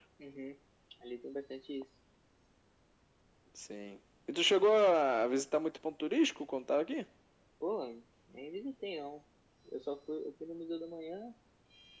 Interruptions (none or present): none